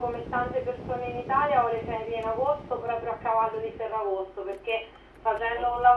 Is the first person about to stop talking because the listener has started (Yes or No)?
No